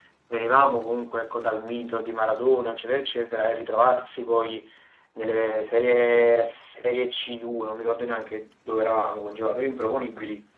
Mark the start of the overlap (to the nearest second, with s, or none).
none